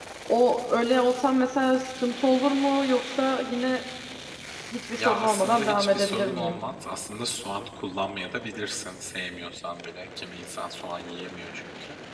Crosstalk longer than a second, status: present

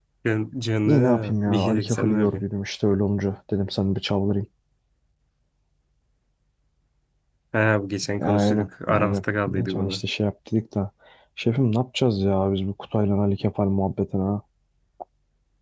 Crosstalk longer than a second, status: present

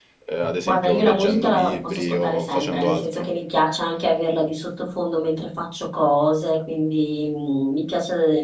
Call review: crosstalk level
present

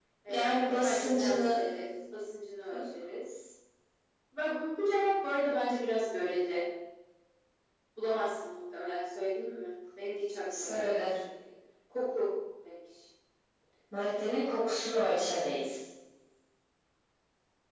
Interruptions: present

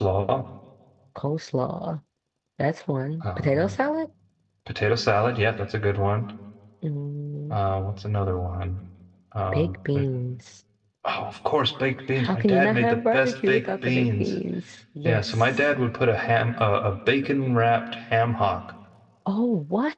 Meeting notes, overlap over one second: present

